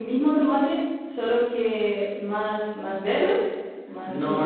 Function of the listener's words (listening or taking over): taking over